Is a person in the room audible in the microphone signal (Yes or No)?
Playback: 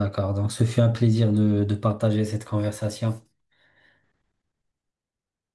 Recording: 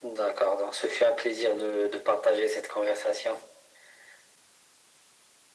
No